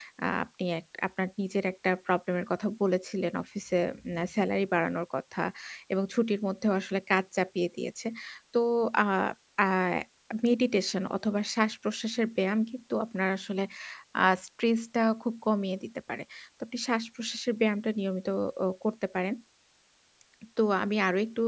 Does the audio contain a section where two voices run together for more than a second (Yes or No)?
No